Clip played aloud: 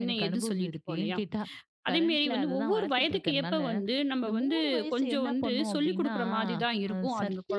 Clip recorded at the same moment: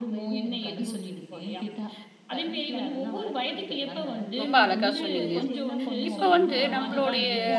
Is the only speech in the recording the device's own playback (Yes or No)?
No